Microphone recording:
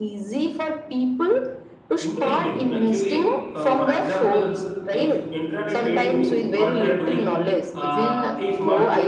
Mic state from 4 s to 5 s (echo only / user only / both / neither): both